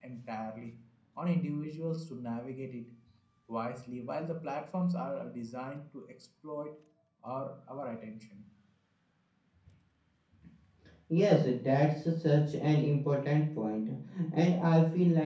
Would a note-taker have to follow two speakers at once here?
No

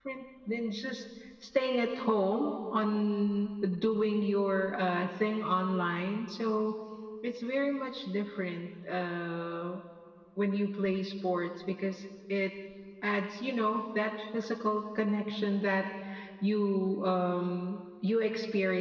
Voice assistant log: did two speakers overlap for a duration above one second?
No

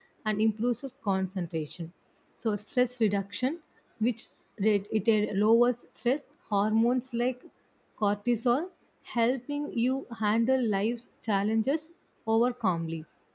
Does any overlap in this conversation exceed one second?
No

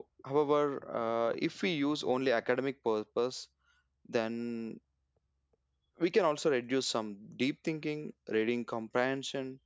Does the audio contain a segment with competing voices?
No

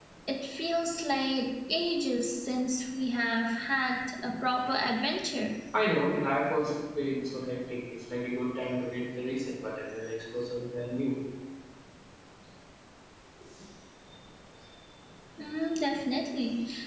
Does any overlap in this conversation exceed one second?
No

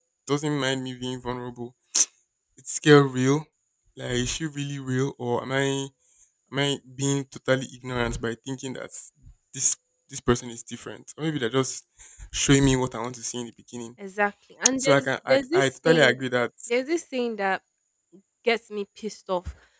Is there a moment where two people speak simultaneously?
Yes, from 14.8 s

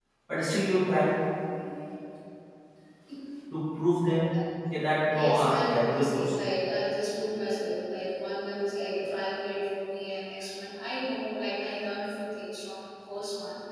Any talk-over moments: Yes, from 5.1 s

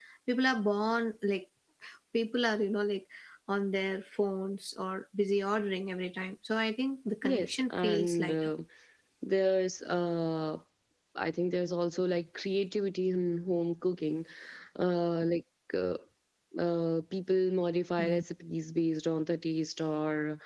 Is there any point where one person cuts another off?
Yes, from 7.2 s

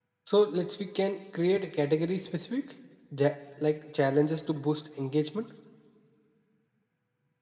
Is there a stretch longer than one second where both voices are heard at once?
No

